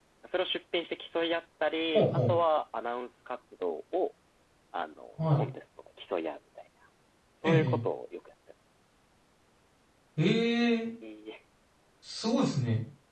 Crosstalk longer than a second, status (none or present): none